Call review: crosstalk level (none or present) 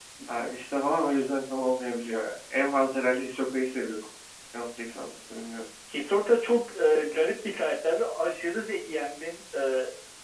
none